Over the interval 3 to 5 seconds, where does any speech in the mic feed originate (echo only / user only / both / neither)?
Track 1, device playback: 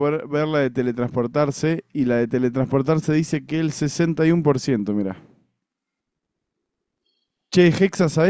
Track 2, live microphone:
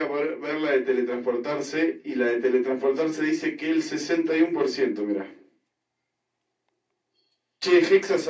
echo only